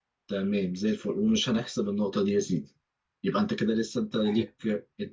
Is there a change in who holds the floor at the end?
No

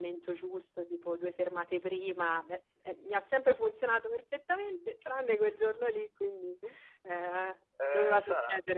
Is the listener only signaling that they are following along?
No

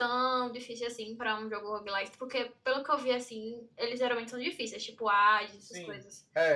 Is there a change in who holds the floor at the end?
Yes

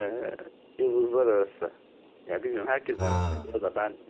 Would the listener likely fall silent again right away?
Yes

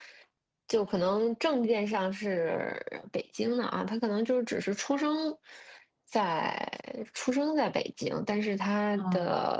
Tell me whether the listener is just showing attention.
Yes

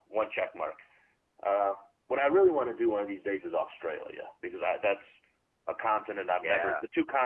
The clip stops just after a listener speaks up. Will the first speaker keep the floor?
Yes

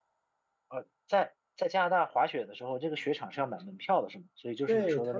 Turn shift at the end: Yes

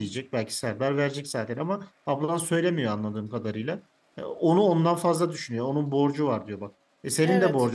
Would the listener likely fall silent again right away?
Yes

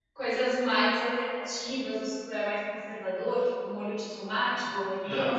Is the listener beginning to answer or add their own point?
Yes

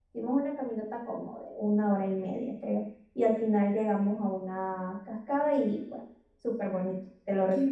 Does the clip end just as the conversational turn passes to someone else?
Yes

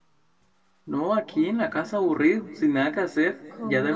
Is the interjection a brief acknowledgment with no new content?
No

